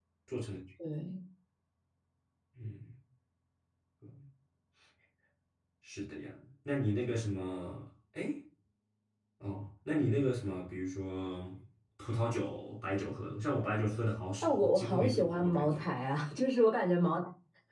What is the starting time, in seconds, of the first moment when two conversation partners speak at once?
14.4 s

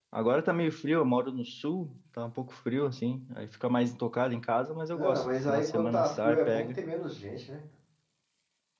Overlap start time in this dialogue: 4.9 s

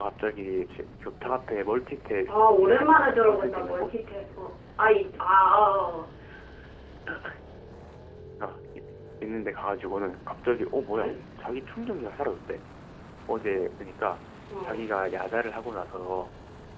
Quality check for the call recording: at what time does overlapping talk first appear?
2.3 s

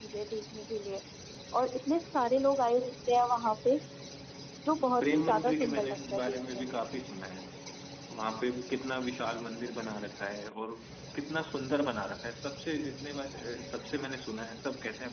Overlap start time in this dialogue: 5.0 s

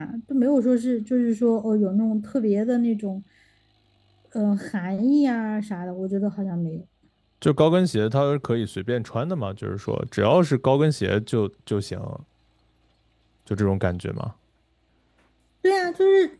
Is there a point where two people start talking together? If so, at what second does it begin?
none

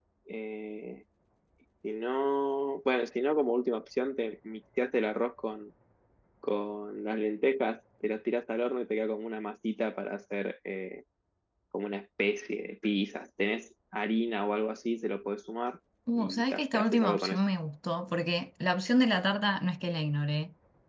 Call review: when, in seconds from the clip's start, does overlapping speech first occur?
16.2 s

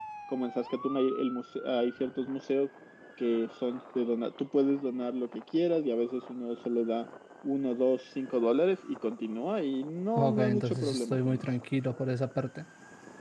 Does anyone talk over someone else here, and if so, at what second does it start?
10.2 s

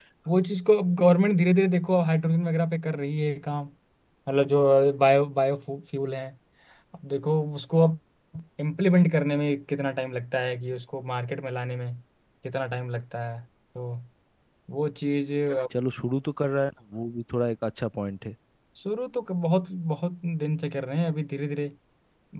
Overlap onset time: none

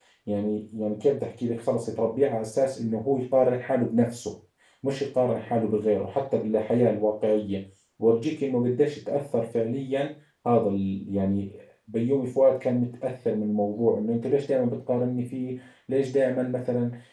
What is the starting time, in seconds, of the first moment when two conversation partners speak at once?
none

